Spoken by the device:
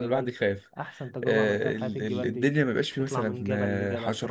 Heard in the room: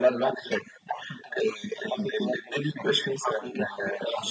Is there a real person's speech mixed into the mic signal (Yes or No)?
No